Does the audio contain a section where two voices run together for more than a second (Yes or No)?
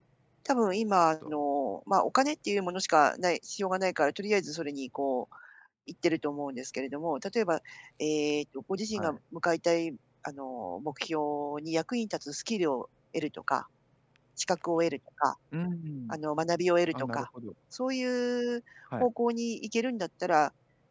No